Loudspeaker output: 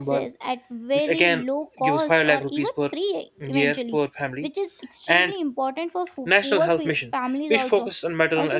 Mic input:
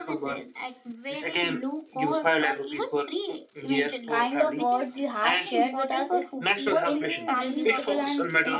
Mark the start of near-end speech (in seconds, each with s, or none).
4.1 s